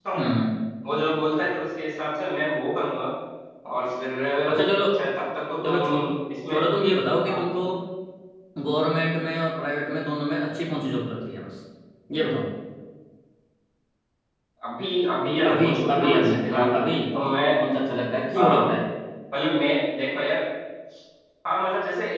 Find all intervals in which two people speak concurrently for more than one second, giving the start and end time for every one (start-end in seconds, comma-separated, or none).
15.4-16.9